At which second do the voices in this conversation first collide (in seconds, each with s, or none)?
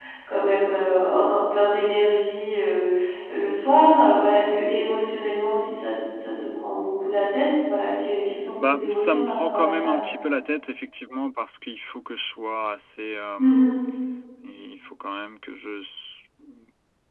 8.6 s